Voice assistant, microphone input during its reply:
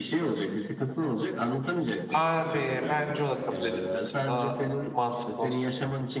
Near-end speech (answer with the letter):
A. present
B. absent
A